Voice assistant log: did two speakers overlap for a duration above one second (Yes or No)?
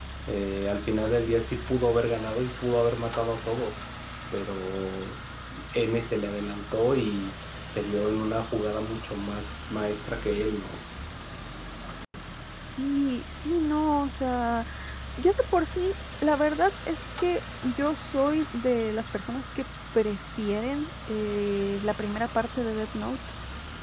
No